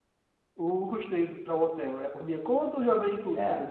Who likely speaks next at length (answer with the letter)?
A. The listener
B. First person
A